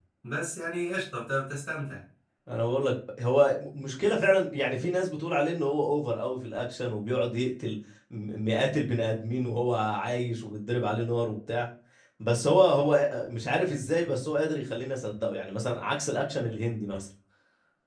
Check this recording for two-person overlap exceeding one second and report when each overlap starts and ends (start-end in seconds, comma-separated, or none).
none